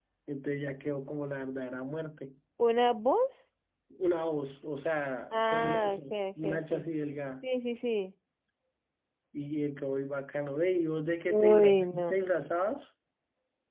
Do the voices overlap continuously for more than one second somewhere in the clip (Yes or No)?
Yes